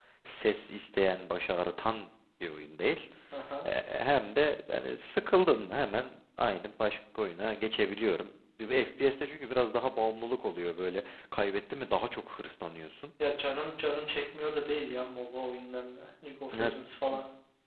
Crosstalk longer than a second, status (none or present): none